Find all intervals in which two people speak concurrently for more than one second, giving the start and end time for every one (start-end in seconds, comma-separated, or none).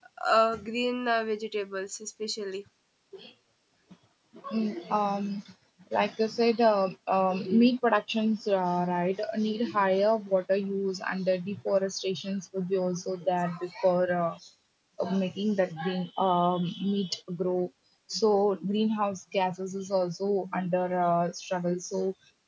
none